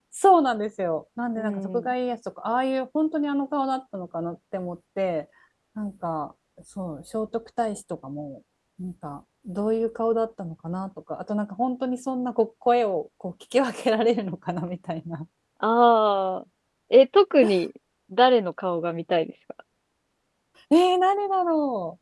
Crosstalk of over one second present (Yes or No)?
No